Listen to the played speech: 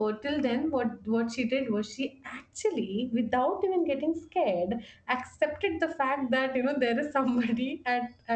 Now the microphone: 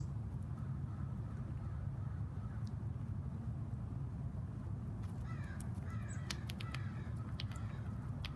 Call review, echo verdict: none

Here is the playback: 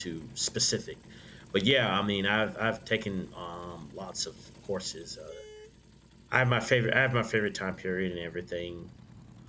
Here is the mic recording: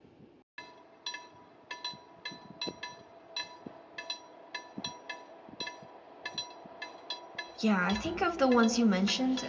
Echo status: none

